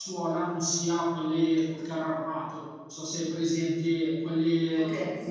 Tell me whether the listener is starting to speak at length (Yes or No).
Yes